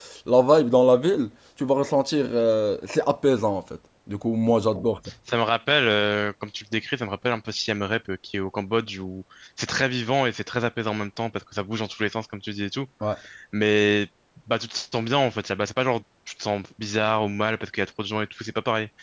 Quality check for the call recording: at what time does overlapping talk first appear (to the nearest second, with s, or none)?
none